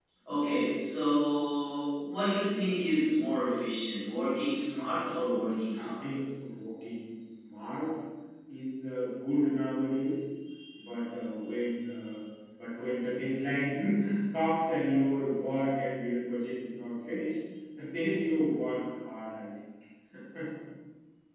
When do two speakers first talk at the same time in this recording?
5 s

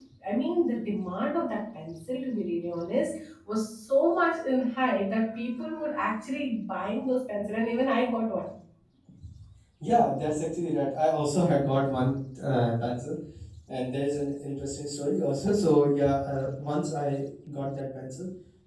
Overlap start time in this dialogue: none

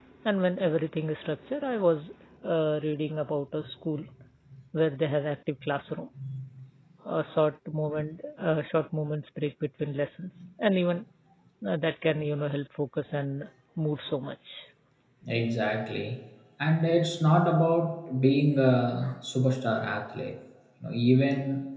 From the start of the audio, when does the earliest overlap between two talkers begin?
none

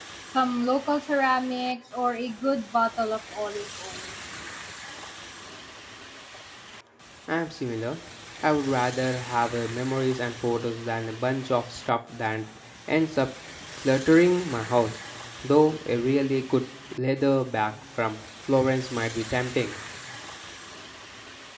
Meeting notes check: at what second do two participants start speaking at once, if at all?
none

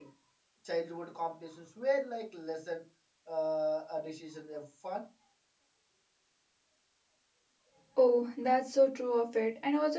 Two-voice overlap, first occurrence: none

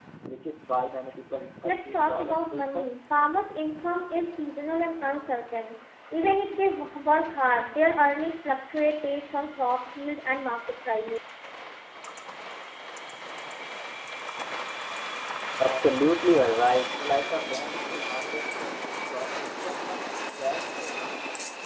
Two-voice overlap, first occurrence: 2 s

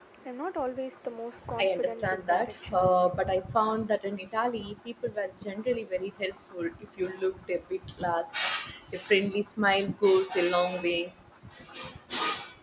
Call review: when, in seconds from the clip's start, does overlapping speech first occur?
1 s

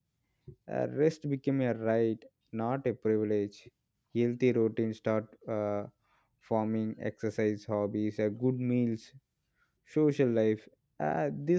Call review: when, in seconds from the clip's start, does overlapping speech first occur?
none

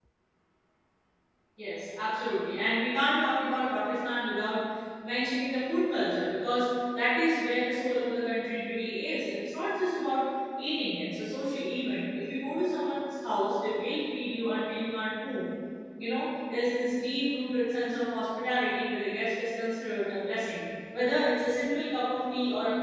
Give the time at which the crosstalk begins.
none

